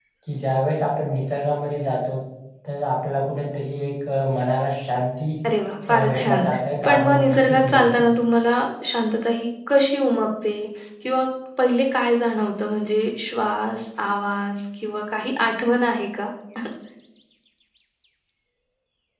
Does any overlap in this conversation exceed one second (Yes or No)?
Yes